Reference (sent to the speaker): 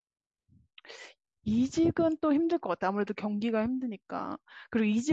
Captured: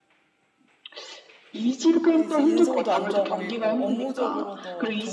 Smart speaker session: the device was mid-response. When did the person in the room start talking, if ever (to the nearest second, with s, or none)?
2 s